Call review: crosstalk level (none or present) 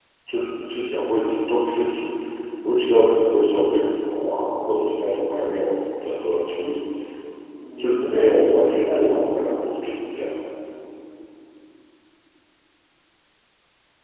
present